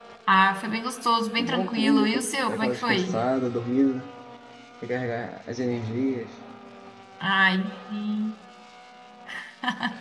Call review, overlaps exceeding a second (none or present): present